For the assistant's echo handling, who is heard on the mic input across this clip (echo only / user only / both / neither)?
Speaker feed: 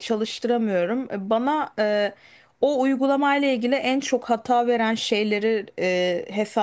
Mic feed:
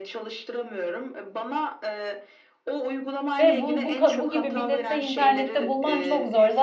both